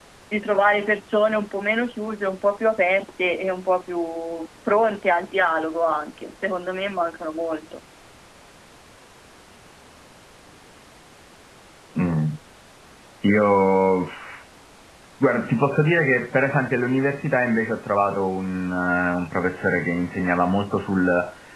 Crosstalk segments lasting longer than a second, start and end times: none

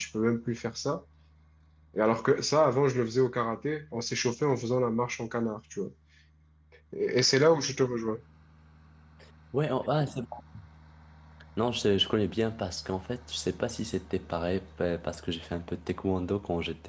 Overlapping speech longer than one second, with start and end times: none

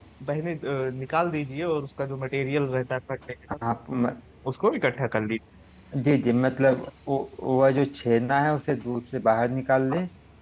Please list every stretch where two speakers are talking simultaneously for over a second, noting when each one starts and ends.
none

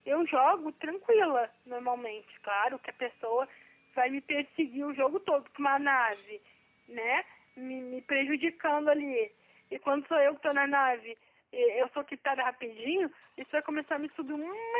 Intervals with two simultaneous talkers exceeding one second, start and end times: none

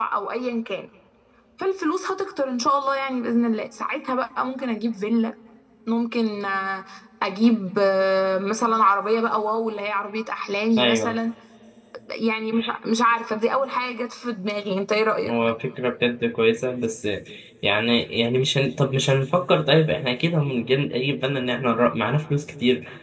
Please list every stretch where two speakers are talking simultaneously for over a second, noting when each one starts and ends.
none

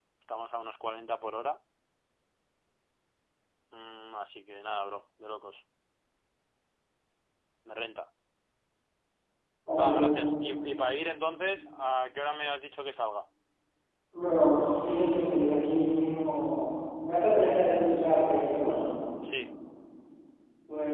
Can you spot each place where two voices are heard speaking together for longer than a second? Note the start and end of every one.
none

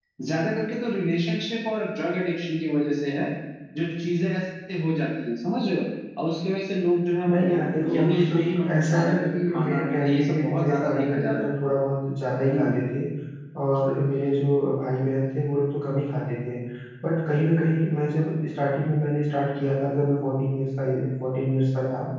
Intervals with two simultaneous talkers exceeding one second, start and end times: 7.3-11.5

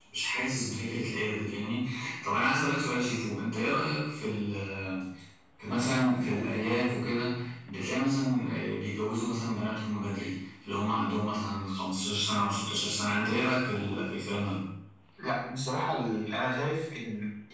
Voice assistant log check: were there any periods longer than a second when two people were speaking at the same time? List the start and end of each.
none

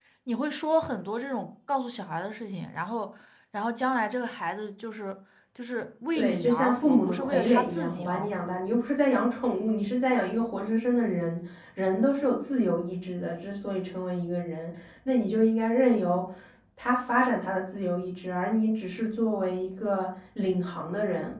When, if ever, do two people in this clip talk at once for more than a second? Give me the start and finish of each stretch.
6.2-8.6

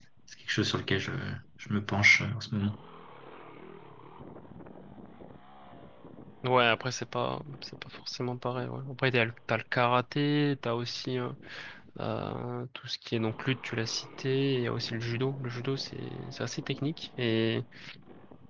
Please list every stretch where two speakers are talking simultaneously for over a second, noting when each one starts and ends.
none

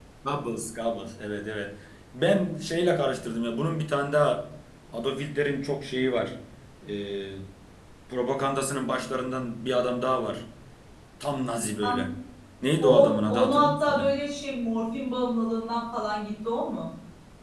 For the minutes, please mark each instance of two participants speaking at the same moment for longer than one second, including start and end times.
12.8-14.1

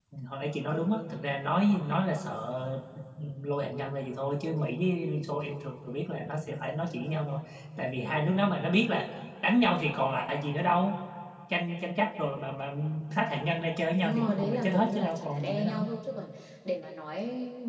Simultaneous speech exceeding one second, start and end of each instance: 14.0-15.8

